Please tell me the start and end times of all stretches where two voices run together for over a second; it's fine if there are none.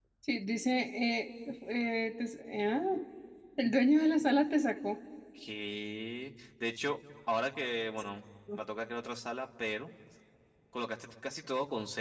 none

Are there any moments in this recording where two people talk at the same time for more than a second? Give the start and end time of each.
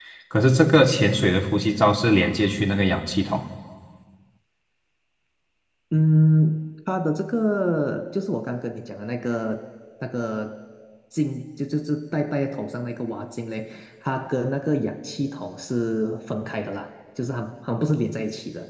none

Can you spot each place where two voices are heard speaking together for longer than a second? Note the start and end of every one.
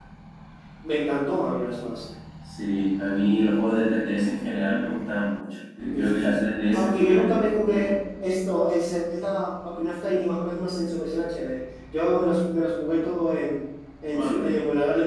5.9-7.2

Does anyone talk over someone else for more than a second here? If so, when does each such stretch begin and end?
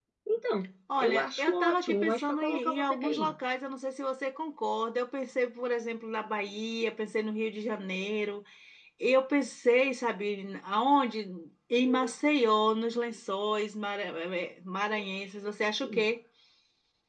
1.0-3.3

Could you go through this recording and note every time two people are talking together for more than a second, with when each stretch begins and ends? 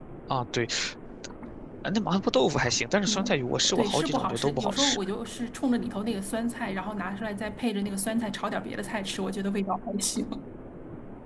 3.1-5.0

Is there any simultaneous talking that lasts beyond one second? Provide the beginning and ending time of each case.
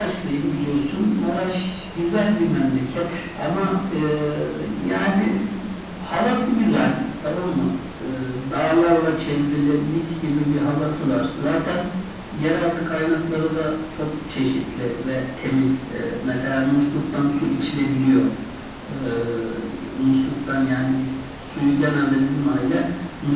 none

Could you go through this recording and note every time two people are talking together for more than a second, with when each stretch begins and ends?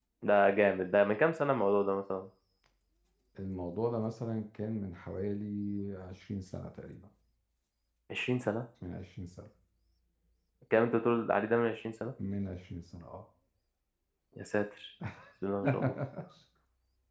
none

